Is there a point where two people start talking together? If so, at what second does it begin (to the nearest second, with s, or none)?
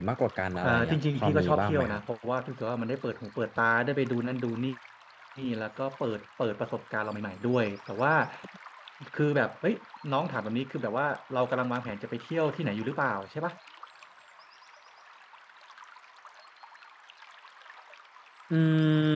1 s